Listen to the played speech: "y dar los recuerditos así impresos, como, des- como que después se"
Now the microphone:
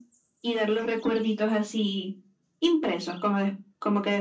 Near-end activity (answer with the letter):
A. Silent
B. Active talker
A